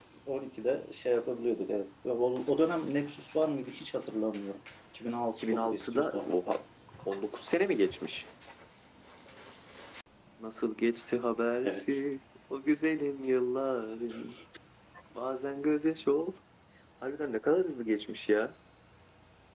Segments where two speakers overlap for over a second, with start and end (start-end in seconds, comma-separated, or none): 5.4-6.6